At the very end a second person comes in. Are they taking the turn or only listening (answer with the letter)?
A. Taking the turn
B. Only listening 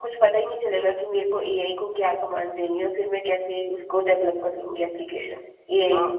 A